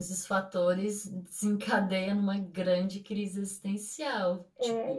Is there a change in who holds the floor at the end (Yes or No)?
Yes